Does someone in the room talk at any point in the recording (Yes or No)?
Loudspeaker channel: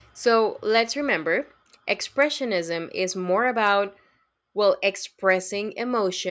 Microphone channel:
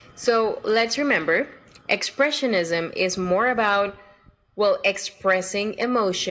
No